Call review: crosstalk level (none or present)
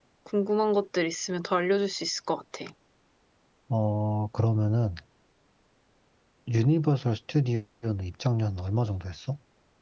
none